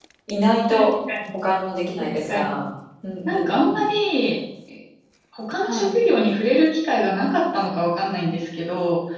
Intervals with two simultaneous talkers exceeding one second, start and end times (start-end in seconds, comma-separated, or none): none